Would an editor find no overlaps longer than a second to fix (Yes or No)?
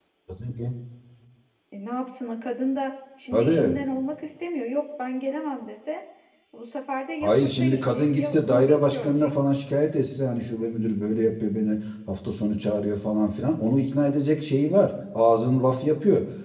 No